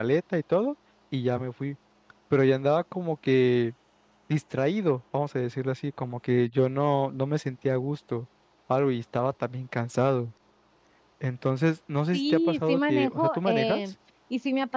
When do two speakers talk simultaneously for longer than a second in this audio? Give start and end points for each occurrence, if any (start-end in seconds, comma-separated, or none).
12.1-13.8